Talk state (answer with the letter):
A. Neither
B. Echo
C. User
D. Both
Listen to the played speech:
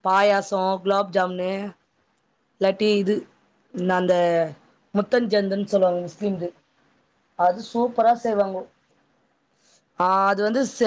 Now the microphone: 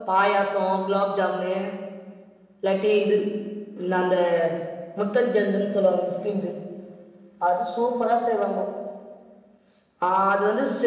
B